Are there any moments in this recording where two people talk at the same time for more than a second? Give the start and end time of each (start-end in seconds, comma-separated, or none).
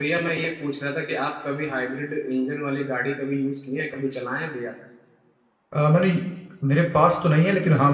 none